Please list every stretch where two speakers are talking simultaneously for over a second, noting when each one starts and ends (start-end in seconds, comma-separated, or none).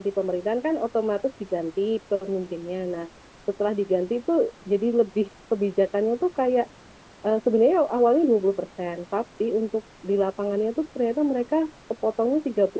none